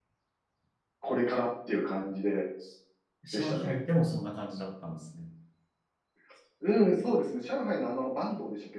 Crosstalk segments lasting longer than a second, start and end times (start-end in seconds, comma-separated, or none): none